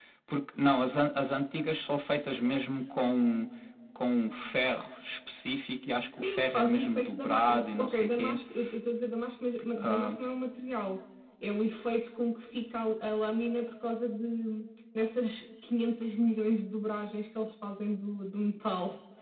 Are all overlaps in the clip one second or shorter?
No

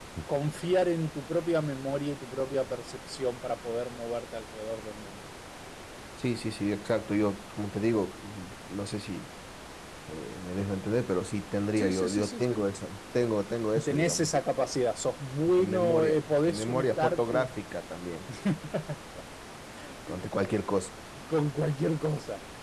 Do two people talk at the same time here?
Yes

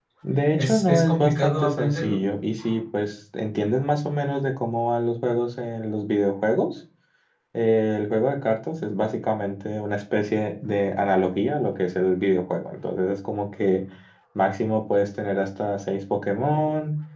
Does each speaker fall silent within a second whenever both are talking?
No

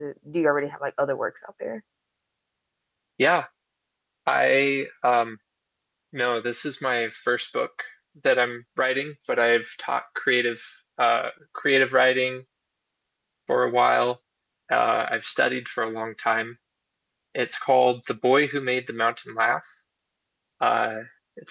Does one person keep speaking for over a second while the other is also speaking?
No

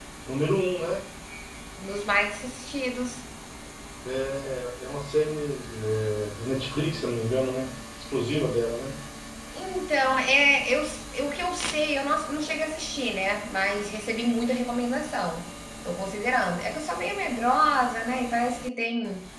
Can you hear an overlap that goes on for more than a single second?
No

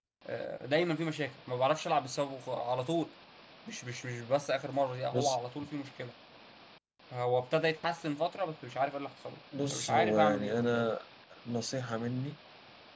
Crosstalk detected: Yes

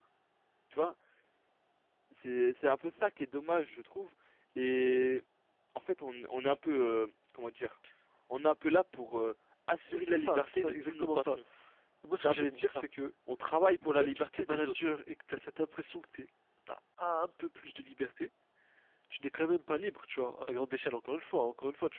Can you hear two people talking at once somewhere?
Yes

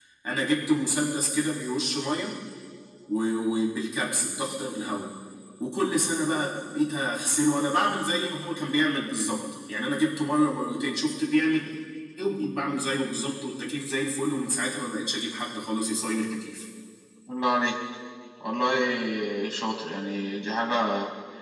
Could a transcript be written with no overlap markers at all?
Yes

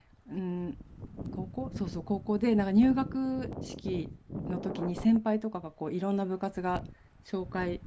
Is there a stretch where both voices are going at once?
No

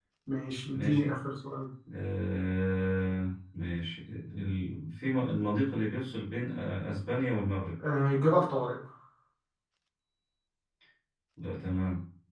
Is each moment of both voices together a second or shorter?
Yes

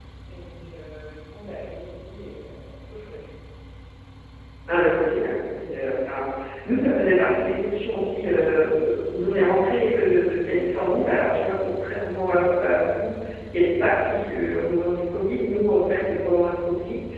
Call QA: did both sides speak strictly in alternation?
Yes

